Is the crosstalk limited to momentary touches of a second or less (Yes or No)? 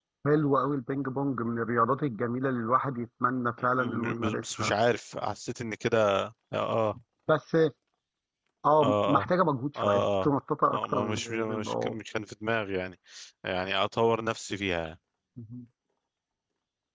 No